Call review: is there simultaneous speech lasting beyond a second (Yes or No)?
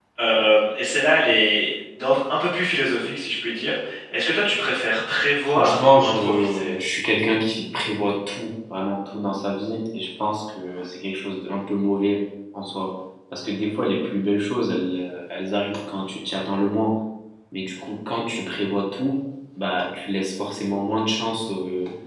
Yes